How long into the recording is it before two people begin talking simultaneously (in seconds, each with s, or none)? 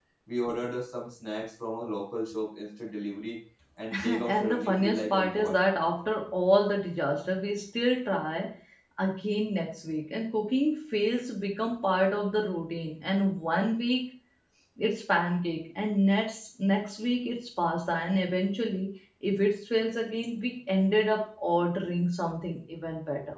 4.0 s